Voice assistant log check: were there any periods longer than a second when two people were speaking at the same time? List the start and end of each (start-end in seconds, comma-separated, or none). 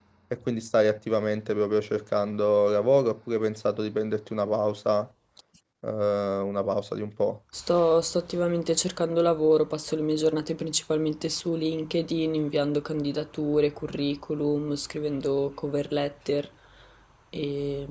none